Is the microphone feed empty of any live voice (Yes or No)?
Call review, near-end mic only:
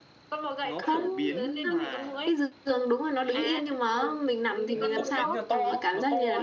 No